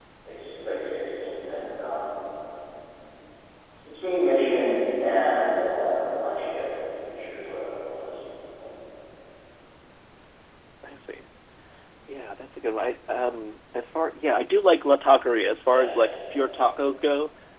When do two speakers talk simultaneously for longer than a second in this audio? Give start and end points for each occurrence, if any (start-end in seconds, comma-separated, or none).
none